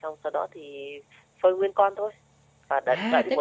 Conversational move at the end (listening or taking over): taking over